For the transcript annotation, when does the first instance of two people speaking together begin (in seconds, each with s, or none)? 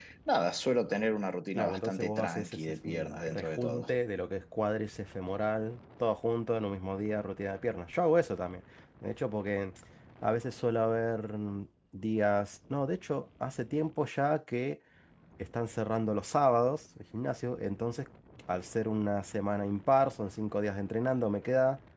1.6 s